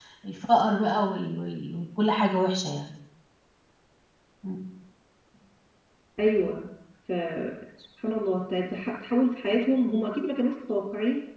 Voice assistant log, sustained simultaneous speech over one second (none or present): none